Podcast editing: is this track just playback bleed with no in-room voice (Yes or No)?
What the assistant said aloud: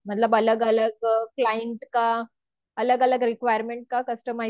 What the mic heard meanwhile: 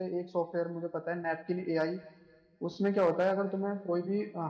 No